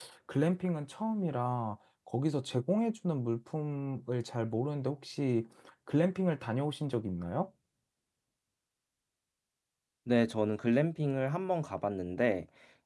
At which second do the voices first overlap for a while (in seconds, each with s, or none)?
none